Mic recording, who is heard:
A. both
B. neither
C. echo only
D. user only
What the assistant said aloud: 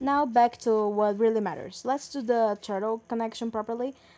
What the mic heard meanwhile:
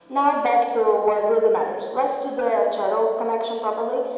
C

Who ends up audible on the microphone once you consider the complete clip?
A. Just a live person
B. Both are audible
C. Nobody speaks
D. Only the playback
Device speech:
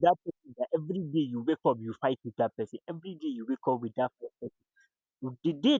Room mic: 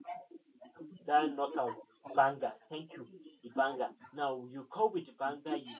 B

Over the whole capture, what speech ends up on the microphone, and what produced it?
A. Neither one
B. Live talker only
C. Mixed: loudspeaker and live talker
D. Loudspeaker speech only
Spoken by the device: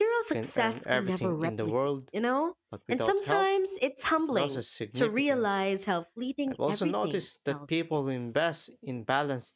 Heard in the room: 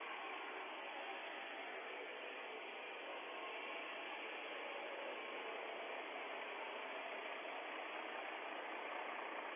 A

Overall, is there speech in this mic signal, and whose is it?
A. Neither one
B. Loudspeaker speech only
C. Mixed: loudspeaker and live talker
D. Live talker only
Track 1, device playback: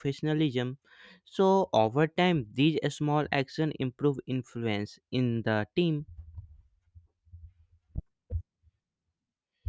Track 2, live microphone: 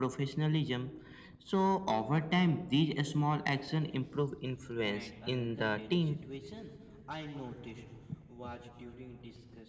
C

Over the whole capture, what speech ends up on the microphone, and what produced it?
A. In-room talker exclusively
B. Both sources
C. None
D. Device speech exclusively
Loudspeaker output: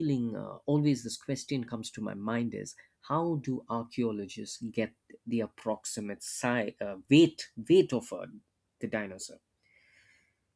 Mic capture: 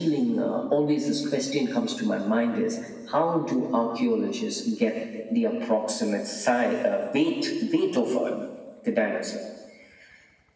D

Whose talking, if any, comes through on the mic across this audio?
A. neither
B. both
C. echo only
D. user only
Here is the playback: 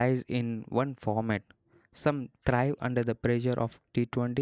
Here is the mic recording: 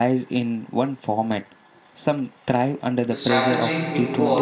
B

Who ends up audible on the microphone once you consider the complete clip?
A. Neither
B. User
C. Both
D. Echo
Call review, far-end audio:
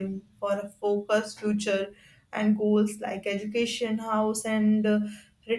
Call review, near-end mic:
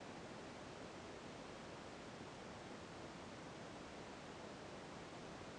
A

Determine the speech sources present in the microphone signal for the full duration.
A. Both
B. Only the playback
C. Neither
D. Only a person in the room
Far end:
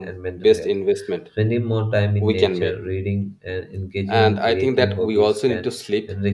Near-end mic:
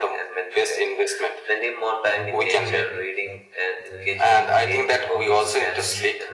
A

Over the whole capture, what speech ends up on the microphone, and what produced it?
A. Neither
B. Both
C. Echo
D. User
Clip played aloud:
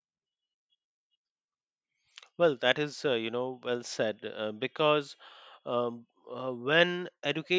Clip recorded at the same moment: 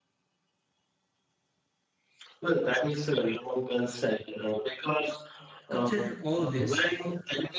B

